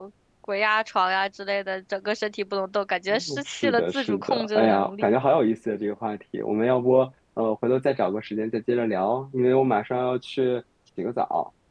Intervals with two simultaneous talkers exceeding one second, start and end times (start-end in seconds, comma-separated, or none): 3.1-5.1